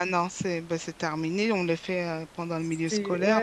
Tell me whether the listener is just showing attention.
No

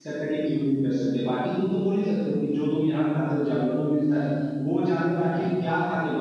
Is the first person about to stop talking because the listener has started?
No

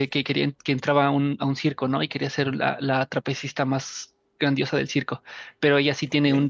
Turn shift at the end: No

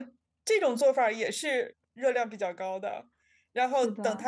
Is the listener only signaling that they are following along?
Yes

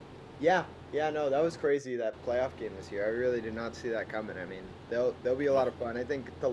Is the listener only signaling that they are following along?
Yes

